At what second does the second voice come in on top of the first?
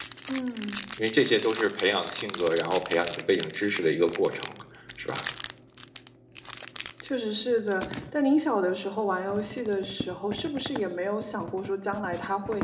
none

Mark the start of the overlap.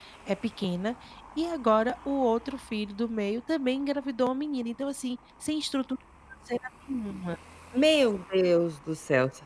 none

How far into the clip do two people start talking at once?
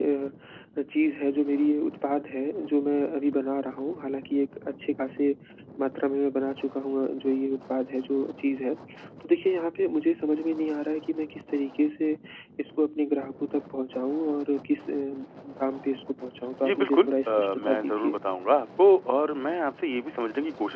16.6 s

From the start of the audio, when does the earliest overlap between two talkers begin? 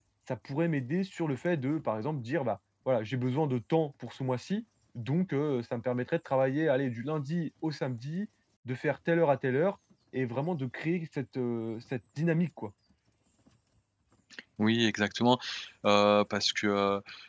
none

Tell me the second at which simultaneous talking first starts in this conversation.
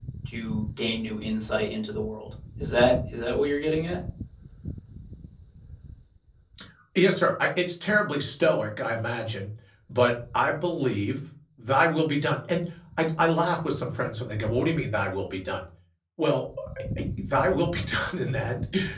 none

